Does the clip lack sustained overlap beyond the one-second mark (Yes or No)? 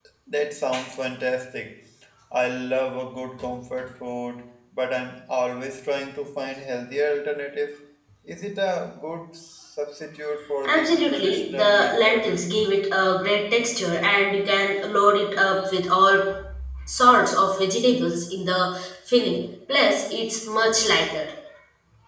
No